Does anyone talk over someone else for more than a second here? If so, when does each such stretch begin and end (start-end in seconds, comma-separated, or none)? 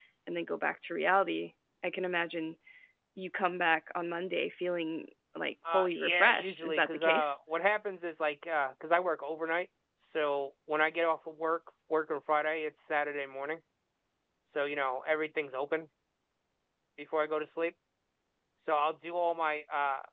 5.7-7.4